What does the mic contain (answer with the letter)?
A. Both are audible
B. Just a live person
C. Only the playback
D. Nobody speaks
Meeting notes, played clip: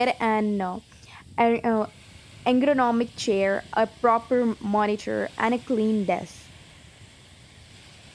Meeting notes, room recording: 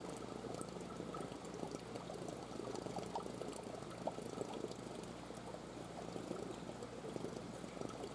D